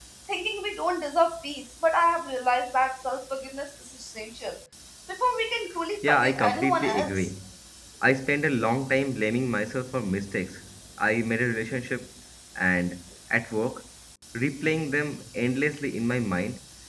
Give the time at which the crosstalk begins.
6.0 s

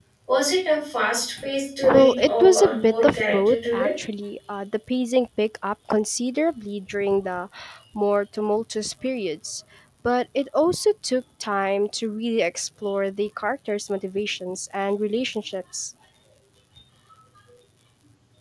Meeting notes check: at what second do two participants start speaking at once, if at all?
1.8 s

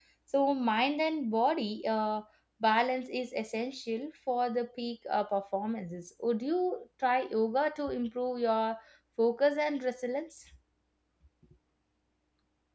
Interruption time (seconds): none

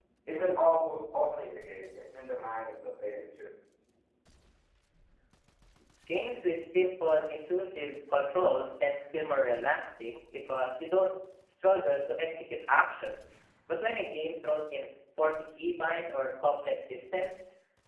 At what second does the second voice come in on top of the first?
none

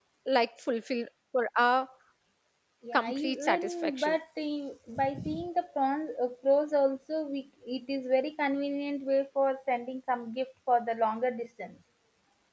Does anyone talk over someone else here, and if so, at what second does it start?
2.9 s

